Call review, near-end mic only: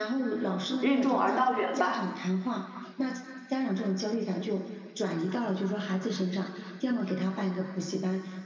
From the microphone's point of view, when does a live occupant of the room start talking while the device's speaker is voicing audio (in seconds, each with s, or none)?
0.8 s